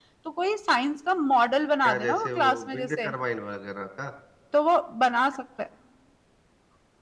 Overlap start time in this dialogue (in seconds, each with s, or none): 1.8 s